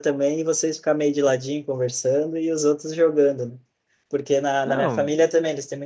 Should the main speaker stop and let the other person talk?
No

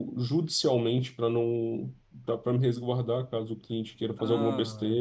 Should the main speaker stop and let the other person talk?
Yes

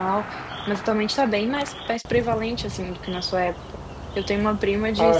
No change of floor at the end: Yes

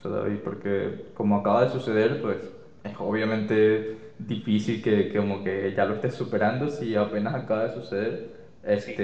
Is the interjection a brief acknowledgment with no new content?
Yes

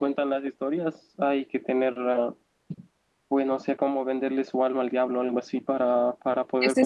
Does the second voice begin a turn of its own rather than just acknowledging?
Yes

